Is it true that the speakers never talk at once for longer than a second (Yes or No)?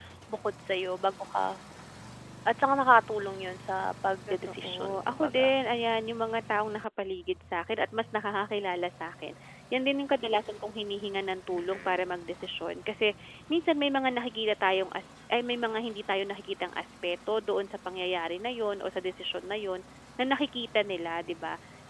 No